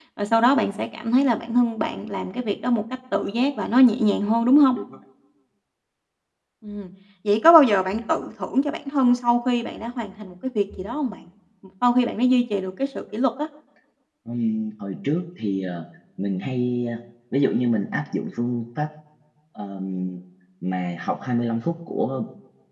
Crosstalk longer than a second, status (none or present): none